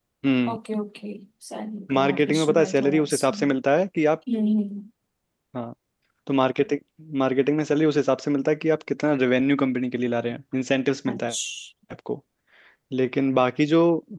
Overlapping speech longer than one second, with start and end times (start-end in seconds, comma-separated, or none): 2.0-3.4